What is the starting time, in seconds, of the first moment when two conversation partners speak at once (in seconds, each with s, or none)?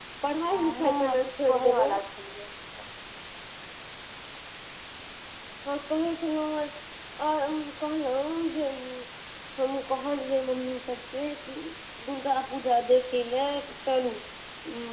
0.5 s